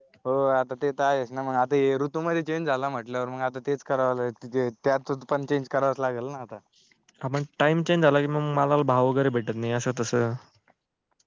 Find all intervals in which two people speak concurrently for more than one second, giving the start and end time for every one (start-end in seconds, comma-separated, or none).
none